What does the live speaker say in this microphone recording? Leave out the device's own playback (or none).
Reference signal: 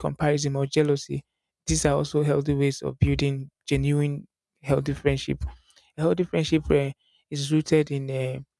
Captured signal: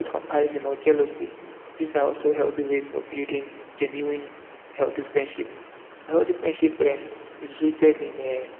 none